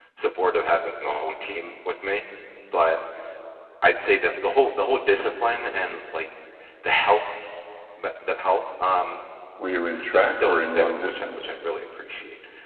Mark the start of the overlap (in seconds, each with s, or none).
9.9 s